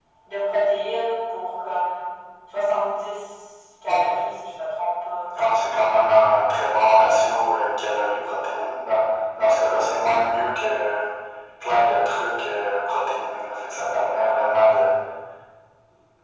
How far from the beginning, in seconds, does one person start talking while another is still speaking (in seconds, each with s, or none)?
none